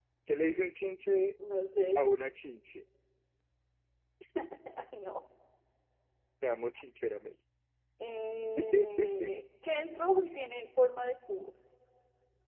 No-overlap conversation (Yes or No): Yes